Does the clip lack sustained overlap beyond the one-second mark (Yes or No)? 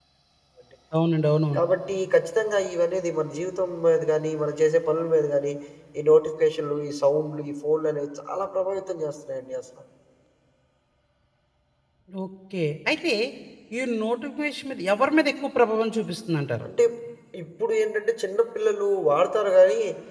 Yes